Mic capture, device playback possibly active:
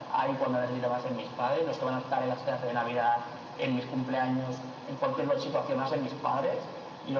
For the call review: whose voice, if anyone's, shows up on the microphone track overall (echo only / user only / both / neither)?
echo only